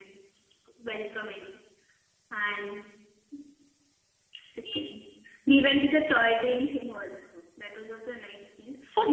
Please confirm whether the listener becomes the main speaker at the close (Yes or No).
Yes